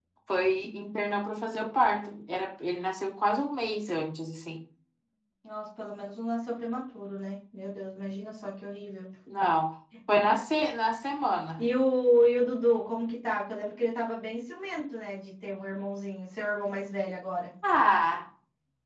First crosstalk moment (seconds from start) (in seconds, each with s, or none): none